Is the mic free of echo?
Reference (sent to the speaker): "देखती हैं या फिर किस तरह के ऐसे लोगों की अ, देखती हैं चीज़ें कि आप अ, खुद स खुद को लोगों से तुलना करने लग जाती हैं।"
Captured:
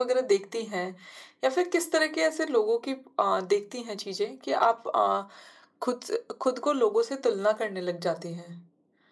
No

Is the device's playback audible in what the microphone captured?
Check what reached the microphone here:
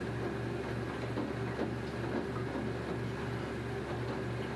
No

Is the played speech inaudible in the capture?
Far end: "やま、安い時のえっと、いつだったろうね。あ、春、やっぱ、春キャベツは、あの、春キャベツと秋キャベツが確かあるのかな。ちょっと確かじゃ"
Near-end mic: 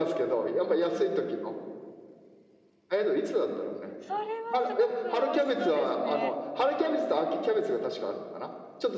No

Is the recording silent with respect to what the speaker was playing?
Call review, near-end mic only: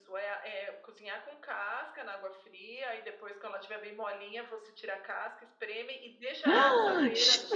No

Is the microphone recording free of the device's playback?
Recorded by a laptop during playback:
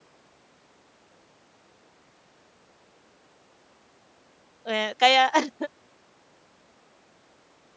Yes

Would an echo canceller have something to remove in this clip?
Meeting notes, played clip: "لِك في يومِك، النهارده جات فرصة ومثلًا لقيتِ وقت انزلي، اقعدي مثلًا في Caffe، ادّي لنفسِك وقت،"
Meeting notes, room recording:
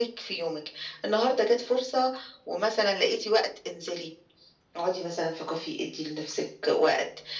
Yes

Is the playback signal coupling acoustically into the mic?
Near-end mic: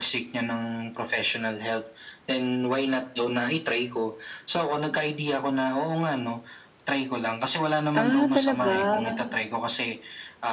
Yes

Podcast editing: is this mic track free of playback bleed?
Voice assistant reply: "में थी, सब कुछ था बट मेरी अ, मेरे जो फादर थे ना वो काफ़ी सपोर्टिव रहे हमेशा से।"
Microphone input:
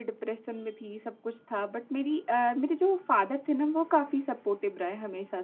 No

